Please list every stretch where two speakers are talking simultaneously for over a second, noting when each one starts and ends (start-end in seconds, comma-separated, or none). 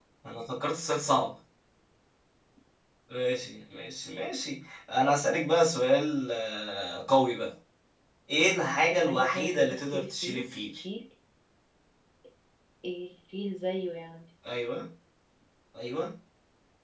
8.9-10.5